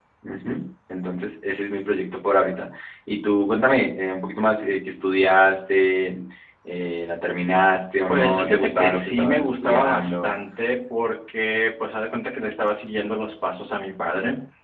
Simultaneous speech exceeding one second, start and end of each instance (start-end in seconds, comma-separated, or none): 8.1-10.3